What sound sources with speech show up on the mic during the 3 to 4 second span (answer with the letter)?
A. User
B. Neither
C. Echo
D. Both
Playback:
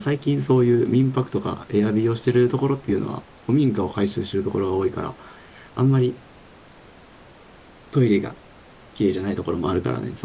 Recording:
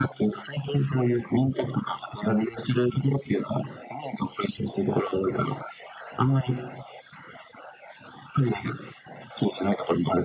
C